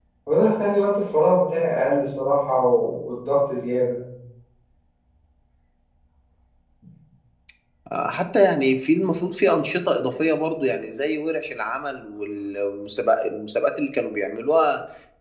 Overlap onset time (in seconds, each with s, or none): none